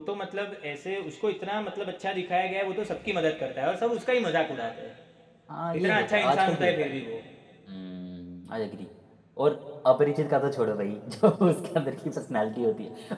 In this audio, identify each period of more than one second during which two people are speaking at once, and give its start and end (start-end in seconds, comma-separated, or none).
5.8-7.0